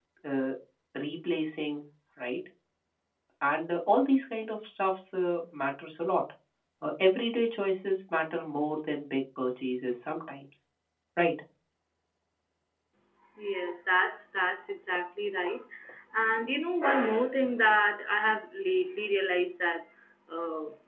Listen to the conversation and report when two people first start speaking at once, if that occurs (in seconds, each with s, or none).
none